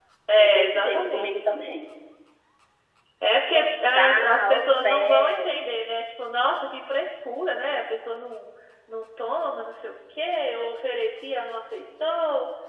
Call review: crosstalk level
present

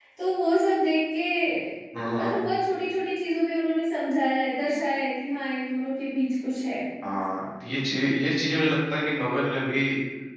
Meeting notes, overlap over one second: none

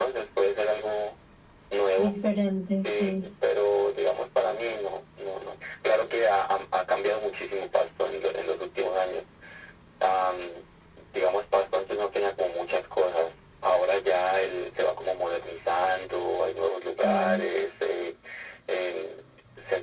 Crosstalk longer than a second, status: none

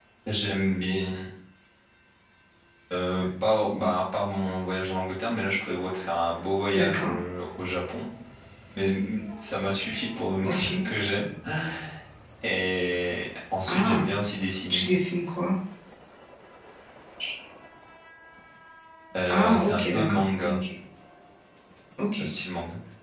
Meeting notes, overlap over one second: present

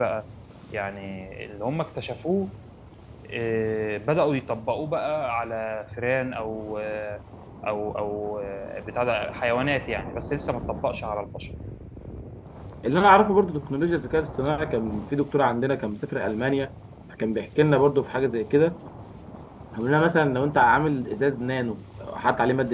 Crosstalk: none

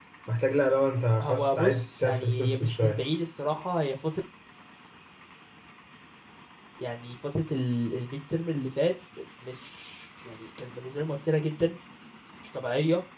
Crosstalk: present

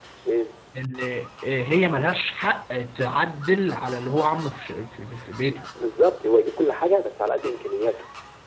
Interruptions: none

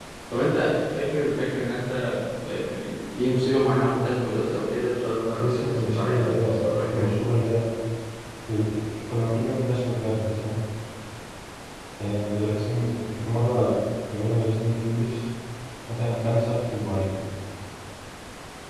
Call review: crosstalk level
present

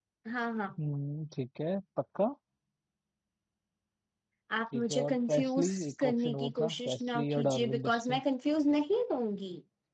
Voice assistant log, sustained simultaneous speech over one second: present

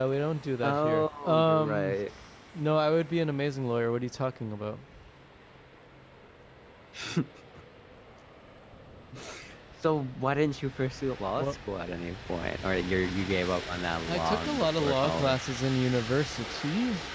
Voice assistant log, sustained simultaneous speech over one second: present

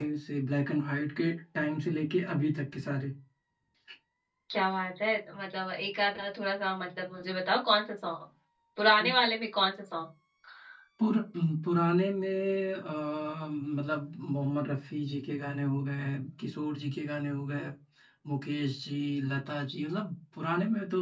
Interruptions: none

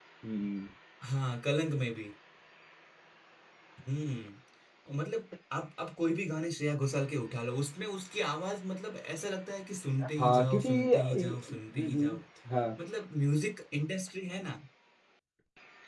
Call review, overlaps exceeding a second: present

